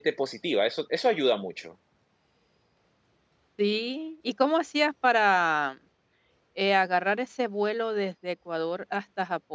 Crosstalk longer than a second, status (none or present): none